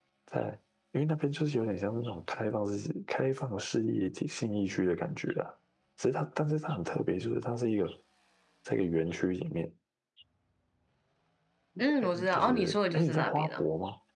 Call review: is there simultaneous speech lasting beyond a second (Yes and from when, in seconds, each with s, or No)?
Yes, from 12.0 s